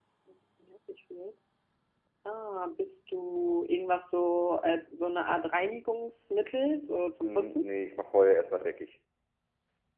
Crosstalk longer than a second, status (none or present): none